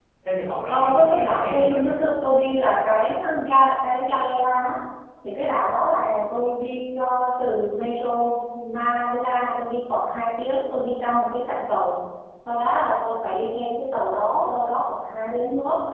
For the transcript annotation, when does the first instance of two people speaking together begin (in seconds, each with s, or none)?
0.7 s